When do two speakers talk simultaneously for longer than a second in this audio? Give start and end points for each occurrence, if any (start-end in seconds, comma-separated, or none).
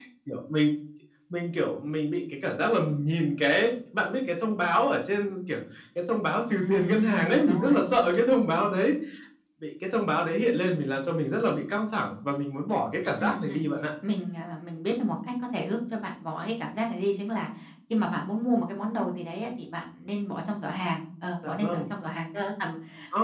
6.6-8.1